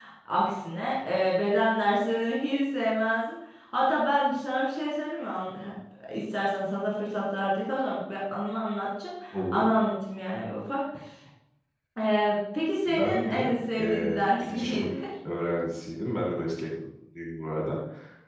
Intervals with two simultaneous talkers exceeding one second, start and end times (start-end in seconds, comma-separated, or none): 12.9-14.9